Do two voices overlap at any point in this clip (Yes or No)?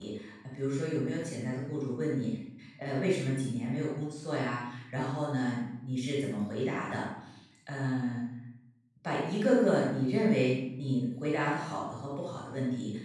No